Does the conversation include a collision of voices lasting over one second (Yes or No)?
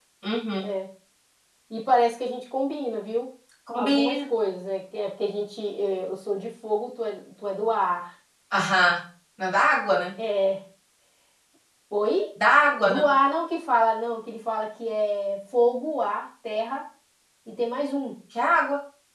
No